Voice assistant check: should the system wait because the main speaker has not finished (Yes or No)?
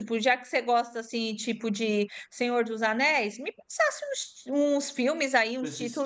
Yes